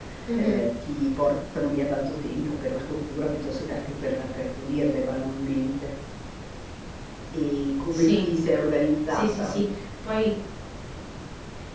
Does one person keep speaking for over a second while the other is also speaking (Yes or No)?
No